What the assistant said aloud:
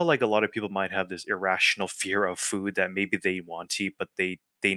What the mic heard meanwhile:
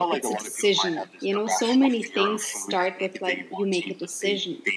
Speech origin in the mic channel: both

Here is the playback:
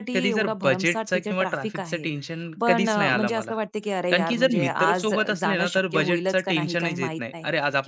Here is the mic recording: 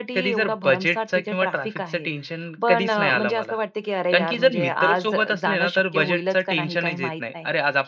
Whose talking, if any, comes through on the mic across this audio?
echo only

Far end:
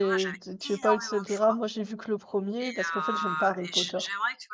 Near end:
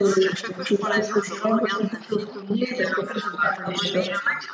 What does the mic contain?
both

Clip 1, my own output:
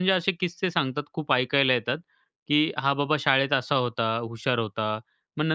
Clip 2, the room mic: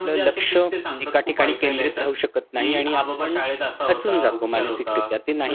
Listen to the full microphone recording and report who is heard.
both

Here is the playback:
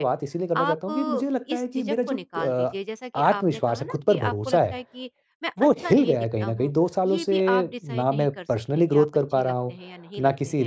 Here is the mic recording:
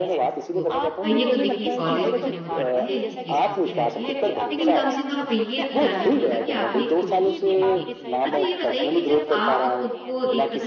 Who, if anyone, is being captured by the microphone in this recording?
both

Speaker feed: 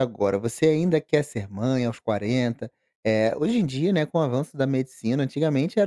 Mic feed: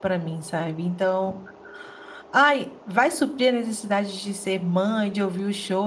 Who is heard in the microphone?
user only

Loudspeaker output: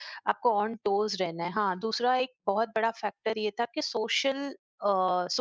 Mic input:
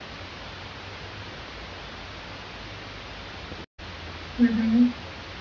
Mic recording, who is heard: user only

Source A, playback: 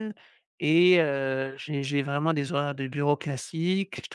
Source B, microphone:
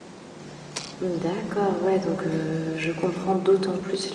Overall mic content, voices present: user only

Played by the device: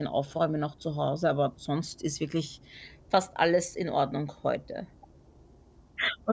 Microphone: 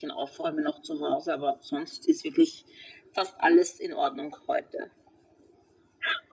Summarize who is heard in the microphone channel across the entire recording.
echo only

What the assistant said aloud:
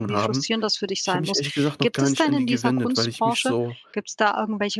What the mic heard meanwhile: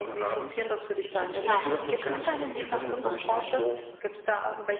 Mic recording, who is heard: both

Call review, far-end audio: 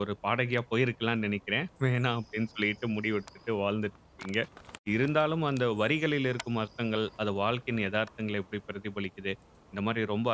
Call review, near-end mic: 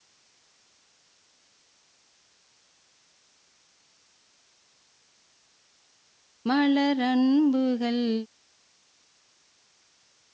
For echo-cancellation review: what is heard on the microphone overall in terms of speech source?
user only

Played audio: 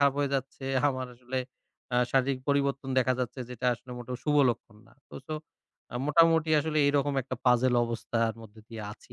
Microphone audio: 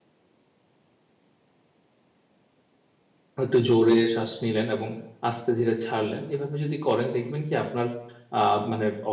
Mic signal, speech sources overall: user only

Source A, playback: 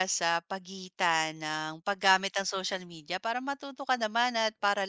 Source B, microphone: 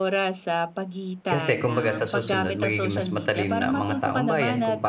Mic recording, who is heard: both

